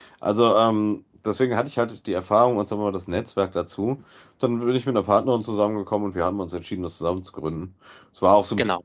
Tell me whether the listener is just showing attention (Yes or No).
Yes